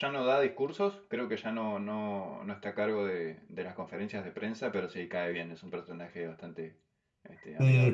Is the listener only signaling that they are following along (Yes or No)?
No